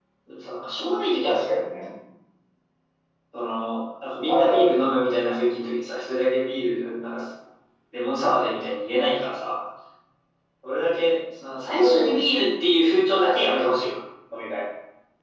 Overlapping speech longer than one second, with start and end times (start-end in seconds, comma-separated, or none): none